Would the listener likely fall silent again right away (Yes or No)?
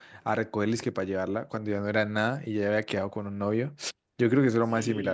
No